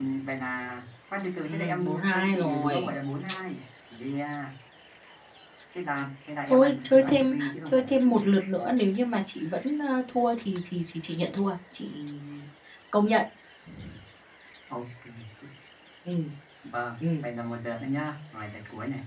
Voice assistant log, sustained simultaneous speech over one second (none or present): present